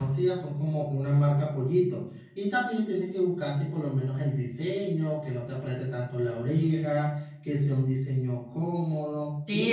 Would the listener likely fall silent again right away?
No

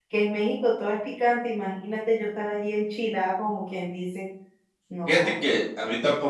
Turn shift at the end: Yes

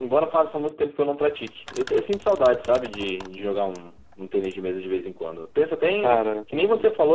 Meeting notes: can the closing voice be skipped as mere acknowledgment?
Yes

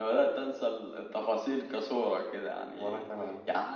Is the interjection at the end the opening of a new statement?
No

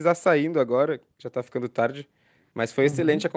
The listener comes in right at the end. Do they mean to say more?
No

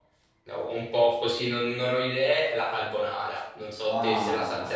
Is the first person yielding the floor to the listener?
Yes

